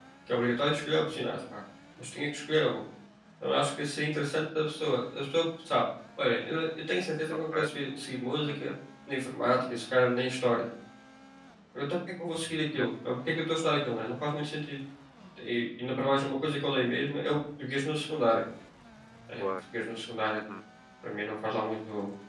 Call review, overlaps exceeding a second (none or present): none